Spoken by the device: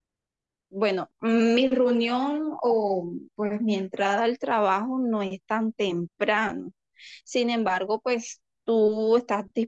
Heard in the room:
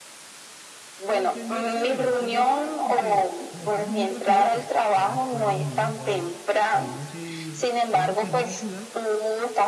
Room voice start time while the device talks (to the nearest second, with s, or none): 1 s